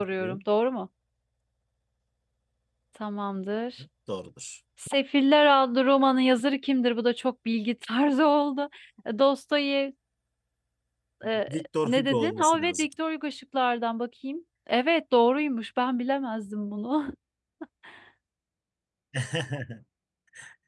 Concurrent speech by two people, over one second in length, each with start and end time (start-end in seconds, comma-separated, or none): 11.5-12.9